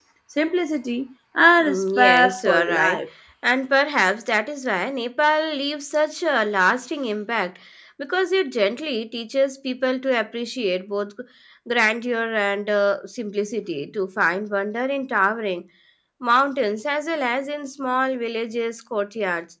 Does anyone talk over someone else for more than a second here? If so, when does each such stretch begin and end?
1.6-3.0

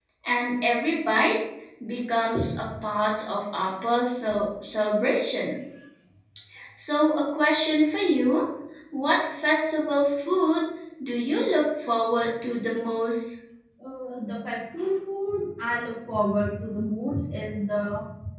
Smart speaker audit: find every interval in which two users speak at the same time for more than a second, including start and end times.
none

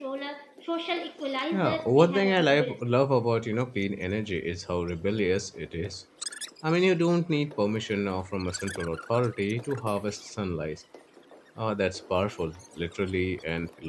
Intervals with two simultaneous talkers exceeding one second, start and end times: 1.5-2.8

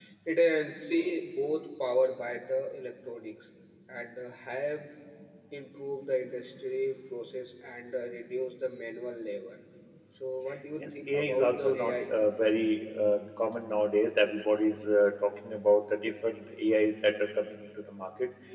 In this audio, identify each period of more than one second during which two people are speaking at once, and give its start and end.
10.8-12.1

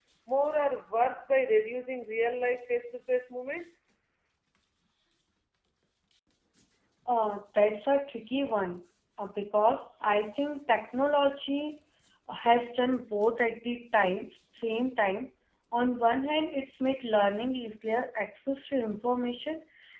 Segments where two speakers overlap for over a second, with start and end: none

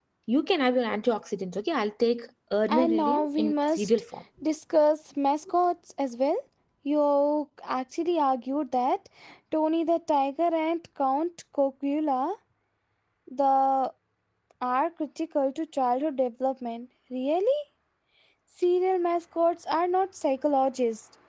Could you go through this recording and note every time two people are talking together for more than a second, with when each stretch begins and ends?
2.7-3.9

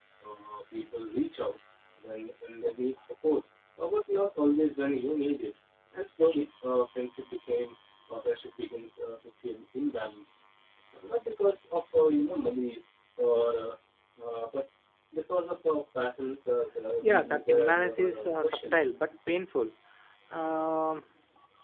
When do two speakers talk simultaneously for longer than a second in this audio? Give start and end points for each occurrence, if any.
17.0-18.8

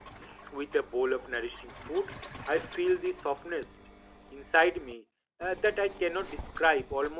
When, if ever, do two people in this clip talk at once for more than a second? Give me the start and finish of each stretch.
none

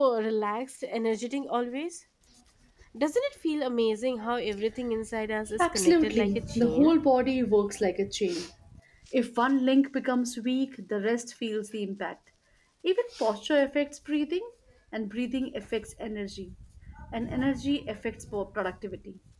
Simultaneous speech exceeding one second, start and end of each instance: 5.6-6.9

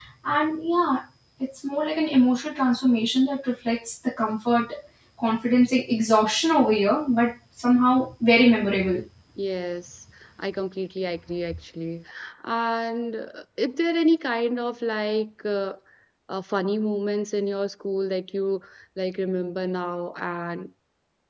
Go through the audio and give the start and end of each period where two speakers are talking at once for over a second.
none

